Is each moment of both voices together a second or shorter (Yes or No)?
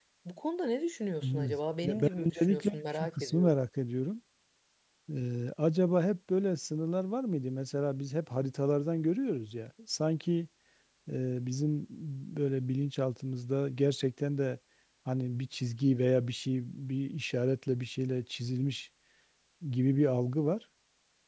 No